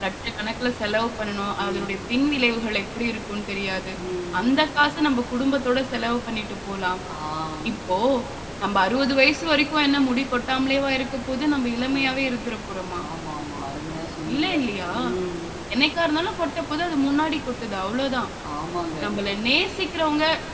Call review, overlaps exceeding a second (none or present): none